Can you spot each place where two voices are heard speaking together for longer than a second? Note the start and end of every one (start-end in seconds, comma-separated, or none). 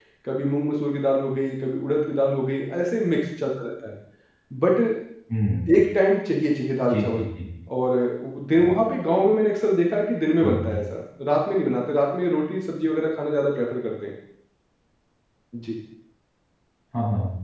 none